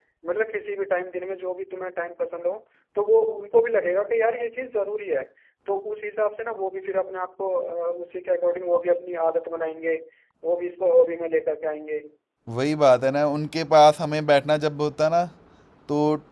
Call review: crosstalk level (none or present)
none